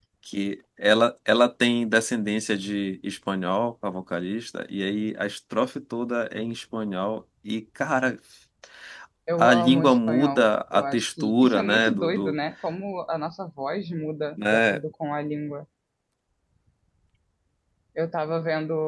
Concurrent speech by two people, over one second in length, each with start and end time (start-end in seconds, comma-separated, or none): 9.4-12.3